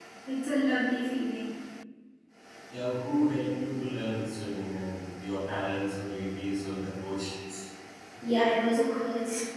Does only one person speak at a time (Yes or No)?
Yes